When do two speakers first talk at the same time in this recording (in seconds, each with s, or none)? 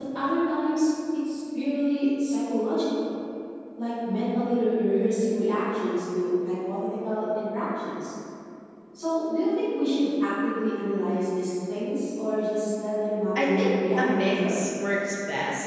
13.4 s